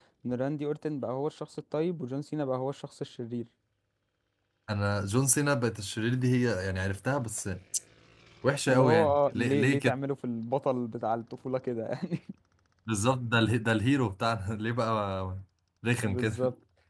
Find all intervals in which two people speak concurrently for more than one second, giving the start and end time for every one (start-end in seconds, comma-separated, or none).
8.7-10.0